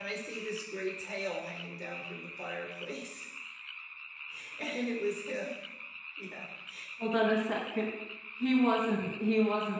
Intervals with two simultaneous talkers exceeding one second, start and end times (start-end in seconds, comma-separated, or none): none